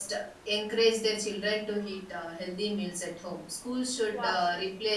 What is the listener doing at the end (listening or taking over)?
listening